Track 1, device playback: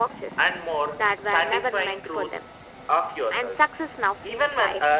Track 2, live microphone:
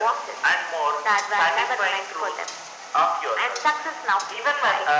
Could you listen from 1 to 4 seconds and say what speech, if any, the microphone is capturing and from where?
echo only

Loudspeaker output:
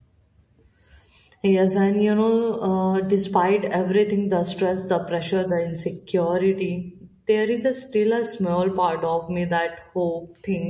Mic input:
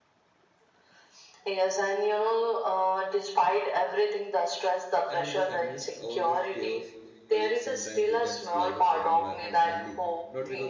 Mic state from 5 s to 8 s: both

